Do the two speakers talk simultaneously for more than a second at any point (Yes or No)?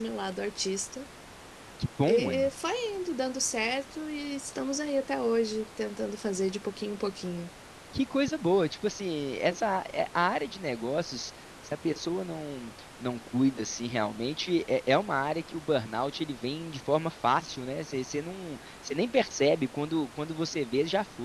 No